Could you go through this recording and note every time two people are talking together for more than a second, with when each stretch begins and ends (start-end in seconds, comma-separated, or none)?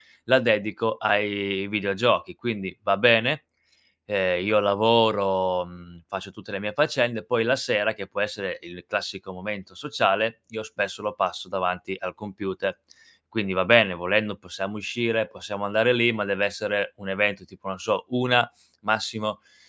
none